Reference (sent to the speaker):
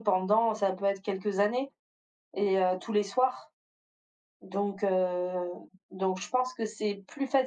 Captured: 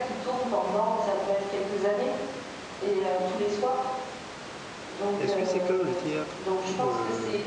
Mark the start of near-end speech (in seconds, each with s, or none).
5.2 s